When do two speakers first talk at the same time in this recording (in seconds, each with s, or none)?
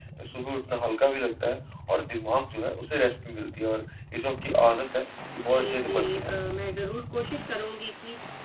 5.4 s